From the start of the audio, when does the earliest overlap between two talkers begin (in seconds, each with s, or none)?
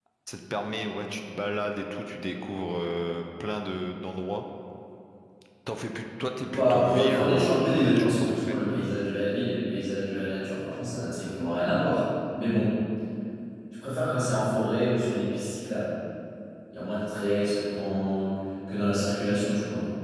6.5 s